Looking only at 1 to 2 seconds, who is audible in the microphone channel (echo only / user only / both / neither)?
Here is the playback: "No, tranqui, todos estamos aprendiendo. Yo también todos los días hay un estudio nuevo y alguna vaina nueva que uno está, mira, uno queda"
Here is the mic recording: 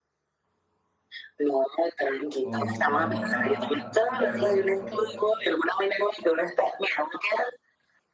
echo only